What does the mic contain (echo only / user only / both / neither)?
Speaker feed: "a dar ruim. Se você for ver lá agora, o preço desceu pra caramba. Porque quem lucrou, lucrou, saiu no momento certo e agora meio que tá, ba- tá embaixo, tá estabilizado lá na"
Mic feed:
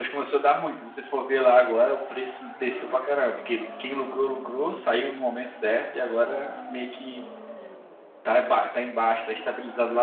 echo only